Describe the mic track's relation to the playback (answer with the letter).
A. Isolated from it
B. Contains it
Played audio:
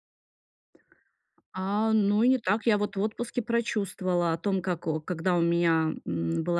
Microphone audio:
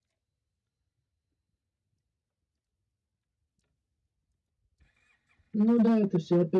A